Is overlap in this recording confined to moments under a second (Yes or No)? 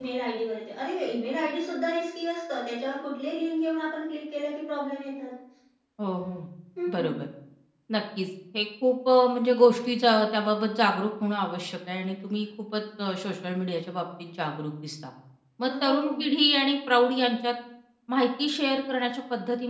Yes